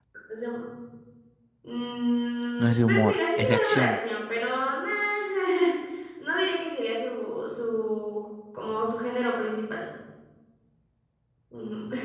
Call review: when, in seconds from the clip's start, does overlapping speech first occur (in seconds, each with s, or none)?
2.6 s